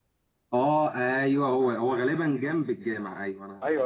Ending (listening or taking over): taking over